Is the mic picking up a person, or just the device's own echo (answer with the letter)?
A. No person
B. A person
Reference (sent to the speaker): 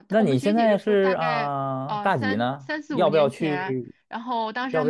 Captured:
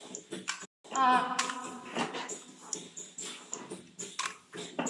B